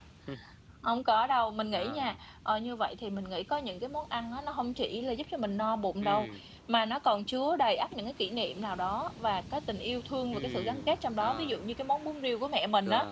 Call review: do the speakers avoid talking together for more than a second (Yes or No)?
No